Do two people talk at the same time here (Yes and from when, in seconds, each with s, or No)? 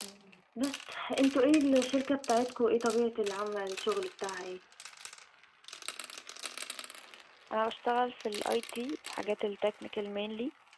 No